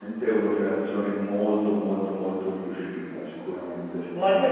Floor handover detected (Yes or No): No